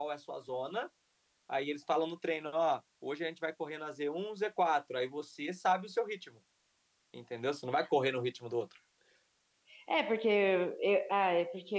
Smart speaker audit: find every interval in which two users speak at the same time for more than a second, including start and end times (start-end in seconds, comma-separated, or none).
none